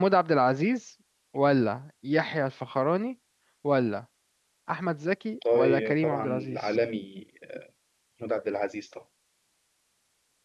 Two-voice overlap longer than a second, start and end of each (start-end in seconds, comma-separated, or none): 5.5-6.7